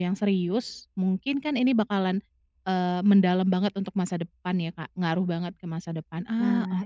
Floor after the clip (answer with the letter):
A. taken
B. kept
A